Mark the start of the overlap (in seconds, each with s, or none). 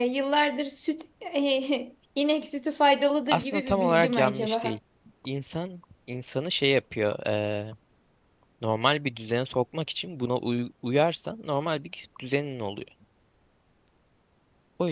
3.3 s